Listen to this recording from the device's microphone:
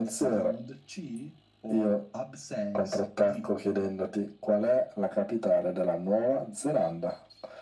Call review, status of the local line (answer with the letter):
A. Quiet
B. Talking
A